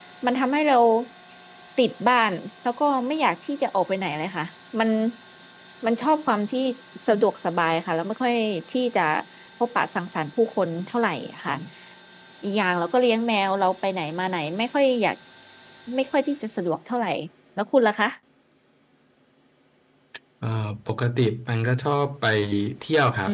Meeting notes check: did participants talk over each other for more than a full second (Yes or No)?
No